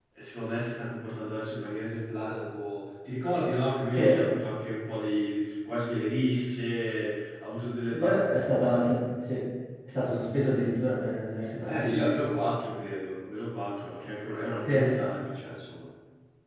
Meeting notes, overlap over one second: none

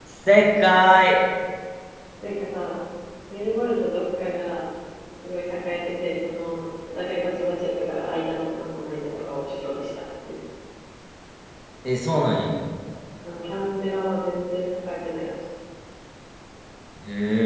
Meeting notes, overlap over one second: none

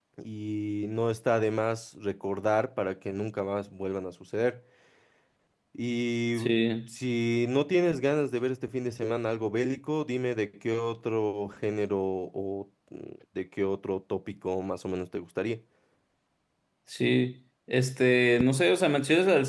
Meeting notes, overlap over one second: none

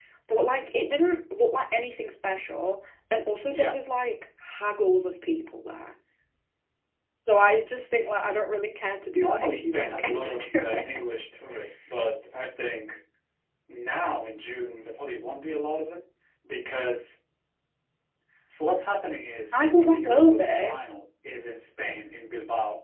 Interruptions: present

